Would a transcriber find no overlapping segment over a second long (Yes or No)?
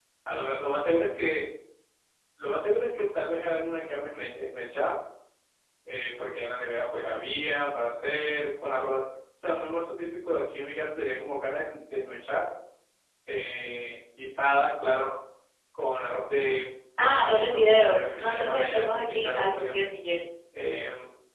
No